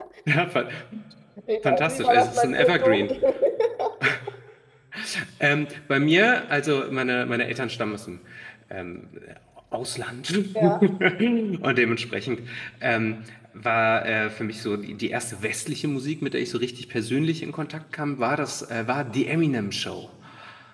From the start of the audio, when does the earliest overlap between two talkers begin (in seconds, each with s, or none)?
1.6 s